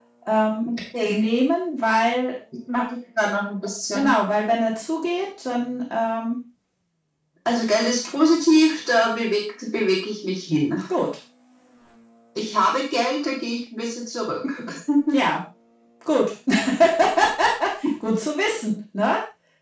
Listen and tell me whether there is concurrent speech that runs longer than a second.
No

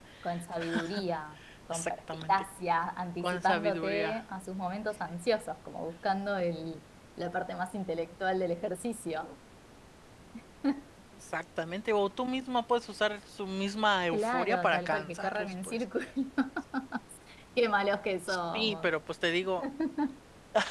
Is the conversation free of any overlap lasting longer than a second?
No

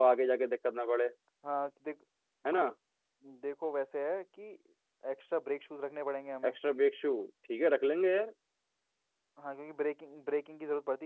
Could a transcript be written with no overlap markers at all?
Yes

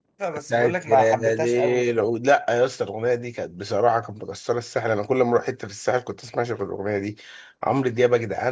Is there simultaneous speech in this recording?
Yes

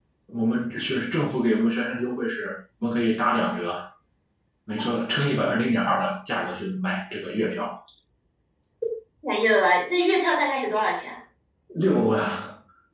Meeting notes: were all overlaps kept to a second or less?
Yes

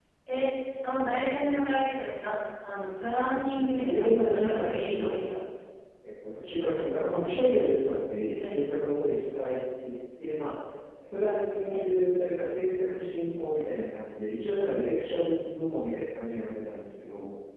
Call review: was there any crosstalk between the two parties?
Yes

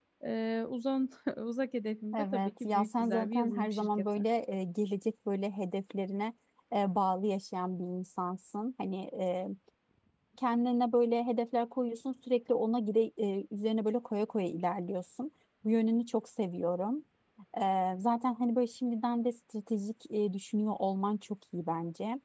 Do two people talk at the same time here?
Yes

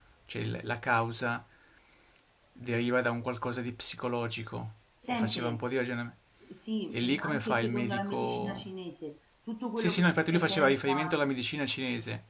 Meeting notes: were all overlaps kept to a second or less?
No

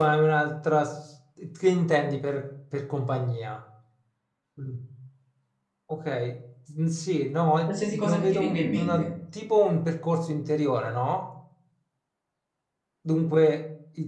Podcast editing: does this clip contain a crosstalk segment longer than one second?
Yes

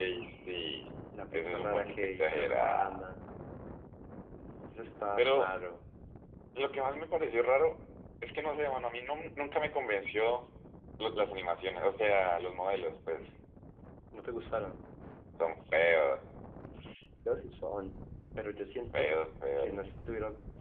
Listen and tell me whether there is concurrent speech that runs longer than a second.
Yes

